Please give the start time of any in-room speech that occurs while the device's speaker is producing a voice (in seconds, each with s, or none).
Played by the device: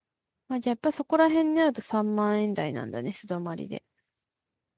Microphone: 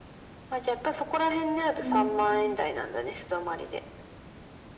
1.8 s